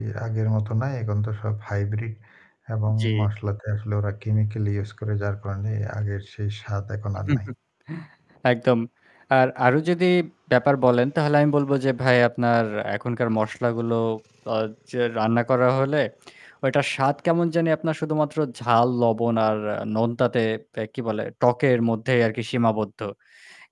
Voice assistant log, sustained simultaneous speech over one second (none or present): none